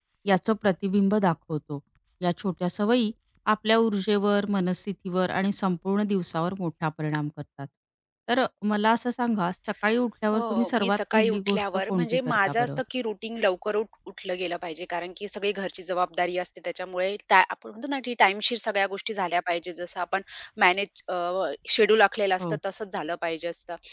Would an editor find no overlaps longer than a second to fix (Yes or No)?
No